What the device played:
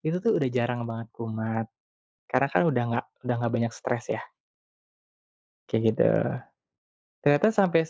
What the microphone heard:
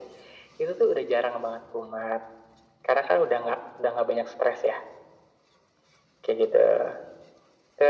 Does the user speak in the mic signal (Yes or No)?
No